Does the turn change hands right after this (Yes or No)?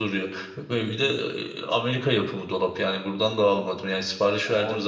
Yes